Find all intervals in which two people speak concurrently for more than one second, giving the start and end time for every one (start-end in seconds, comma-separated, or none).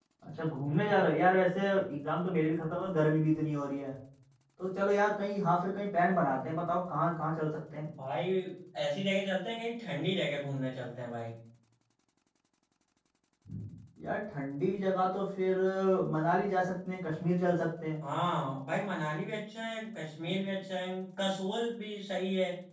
none